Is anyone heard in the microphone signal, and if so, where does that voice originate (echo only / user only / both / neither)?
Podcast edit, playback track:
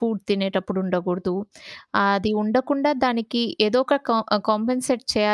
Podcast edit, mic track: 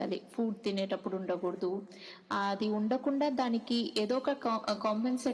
echo only